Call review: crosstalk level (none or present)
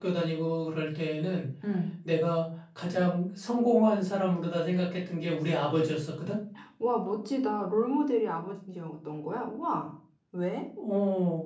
none